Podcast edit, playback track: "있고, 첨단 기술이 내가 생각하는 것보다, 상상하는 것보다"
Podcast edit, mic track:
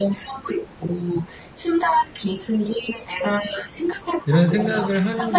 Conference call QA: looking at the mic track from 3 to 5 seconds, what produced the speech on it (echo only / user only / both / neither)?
both